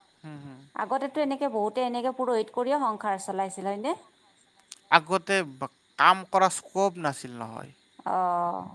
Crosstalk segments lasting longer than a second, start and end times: none

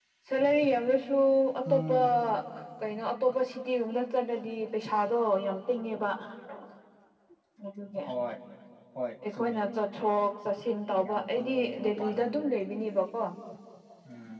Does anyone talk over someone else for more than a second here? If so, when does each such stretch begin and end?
11.0-12.3

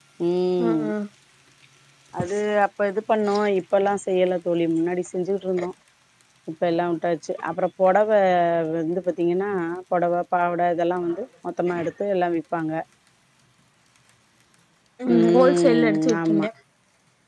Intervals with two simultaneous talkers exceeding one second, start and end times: 15.2-16.4

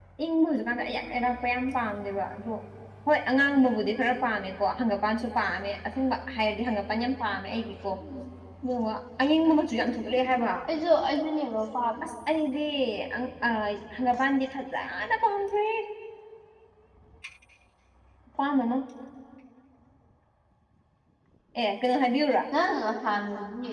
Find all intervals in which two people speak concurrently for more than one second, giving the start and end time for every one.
none

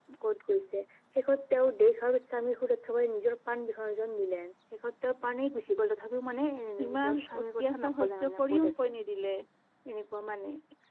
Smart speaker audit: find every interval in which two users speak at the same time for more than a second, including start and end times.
7.1-8.9

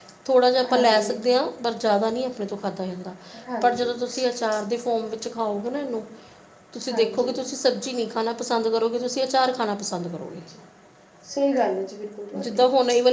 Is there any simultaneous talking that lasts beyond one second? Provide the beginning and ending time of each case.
none

